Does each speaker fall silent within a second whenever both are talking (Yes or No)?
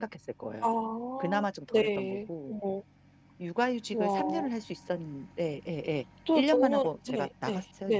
No